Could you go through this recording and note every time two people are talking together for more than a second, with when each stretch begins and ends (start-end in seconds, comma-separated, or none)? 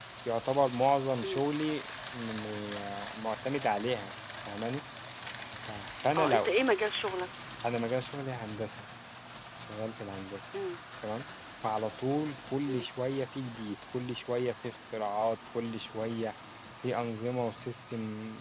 none